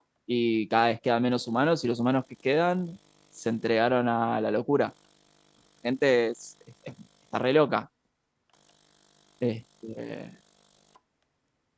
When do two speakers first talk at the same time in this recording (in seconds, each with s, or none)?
none